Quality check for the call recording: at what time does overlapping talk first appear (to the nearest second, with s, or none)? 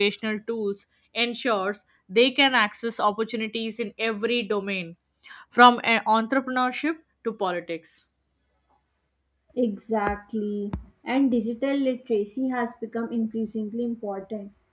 none